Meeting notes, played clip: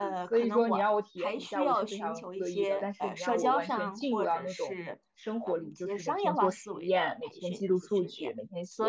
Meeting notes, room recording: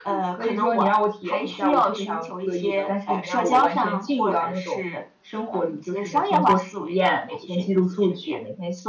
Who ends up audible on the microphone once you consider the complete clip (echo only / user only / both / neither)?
echo only